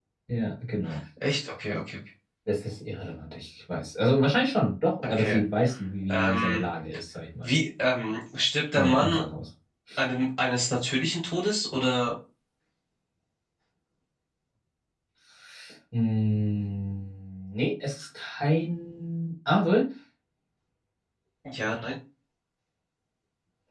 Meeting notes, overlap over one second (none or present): none